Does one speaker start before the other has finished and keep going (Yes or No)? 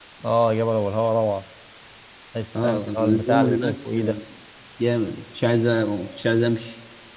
Yes